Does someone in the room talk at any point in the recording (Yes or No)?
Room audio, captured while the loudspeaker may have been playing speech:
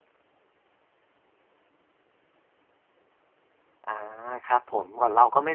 Yes